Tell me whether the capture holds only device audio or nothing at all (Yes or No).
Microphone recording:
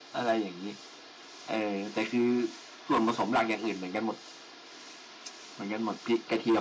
Yes